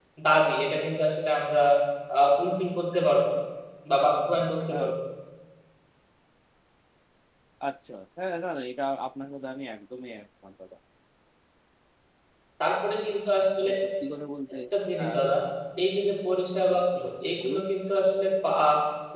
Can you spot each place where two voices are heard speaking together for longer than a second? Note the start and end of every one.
none

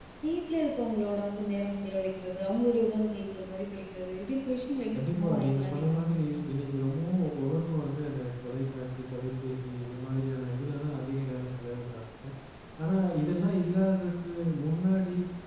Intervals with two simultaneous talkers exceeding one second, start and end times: 5.0-6.4

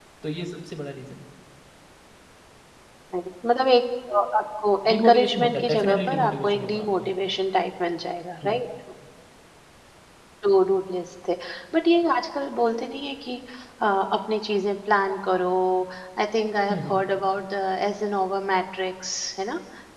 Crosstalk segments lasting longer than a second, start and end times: 4.9-7.1

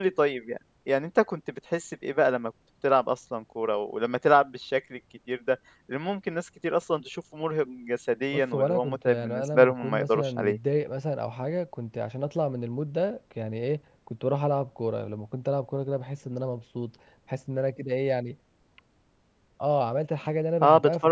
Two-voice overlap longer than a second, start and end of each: 8.3-10.6

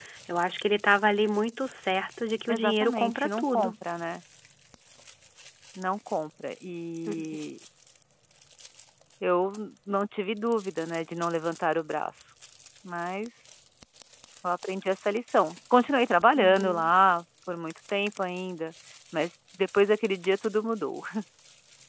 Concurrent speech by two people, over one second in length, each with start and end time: 2.5-3.7

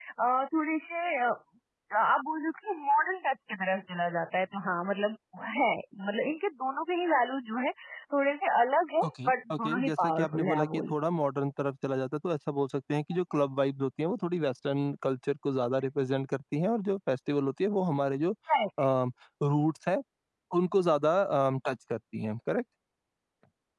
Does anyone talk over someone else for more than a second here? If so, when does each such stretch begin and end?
9.0-10.8

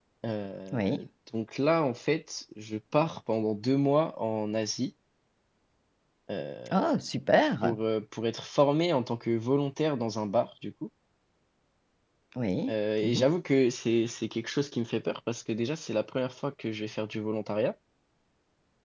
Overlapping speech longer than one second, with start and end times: none

